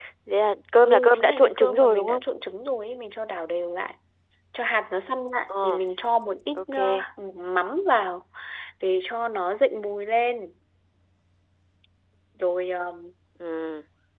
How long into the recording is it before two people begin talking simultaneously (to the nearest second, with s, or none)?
1 s